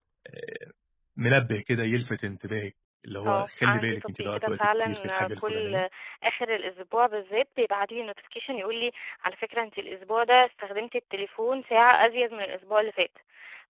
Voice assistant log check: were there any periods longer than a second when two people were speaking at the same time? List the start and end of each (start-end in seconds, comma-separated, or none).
3.3-5.8